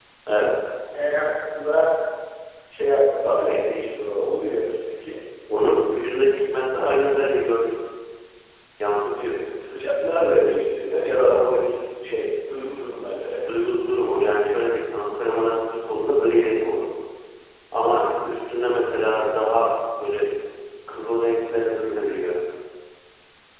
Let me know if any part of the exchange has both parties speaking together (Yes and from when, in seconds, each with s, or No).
No